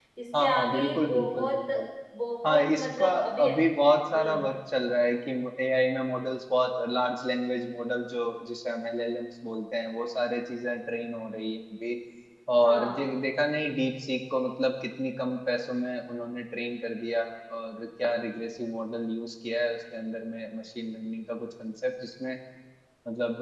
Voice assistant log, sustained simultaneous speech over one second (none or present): present